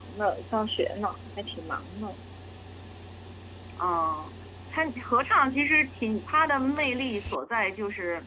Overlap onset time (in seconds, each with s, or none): none